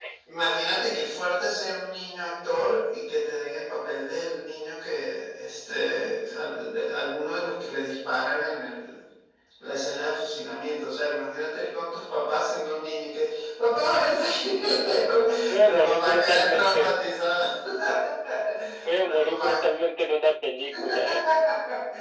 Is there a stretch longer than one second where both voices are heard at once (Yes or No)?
Yes